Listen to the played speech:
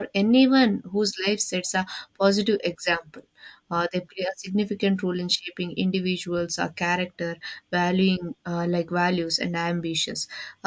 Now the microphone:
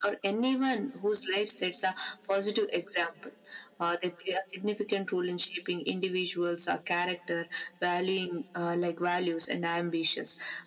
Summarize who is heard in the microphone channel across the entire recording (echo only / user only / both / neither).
echo only